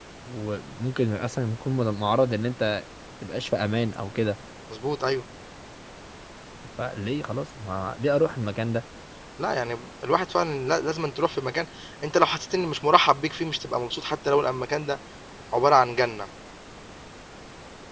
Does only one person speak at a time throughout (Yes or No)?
Yes